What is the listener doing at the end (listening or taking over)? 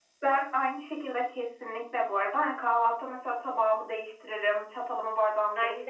listening